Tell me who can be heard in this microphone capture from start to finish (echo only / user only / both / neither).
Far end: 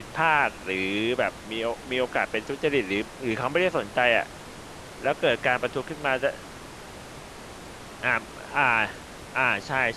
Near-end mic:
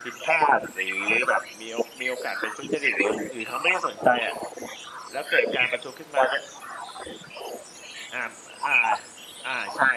echo only